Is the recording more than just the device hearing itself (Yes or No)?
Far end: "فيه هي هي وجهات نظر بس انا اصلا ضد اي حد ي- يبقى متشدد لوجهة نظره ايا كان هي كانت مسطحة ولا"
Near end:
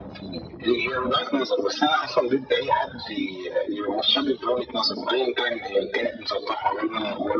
No